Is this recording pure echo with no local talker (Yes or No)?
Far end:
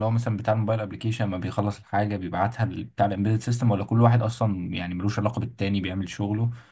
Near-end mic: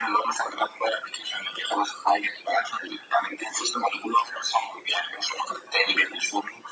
Yes